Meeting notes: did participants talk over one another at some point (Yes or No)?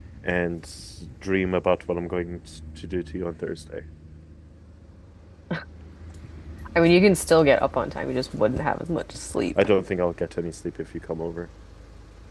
No